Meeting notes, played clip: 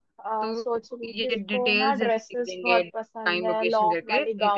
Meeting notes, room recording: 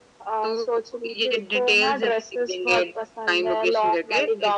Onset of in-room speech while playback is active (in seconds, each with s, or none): none